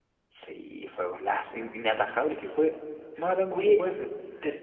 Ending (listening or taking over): taking over